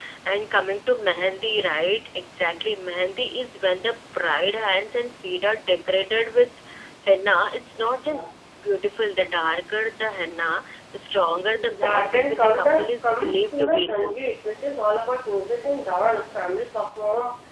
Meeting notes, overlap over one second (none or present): present